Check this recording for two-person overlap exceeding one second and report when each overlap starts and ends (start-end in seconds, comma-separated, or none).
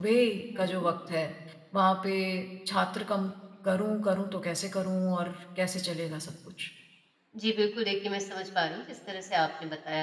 none